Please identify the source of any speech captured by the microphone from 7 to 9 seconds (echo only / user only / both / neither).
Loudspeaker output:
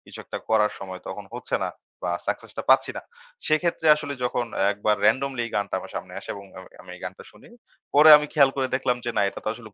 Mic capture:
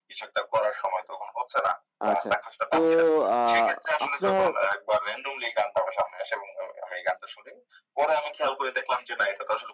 echo only